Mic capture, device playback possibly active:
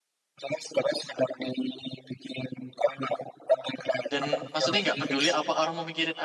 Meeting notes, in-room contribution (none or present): present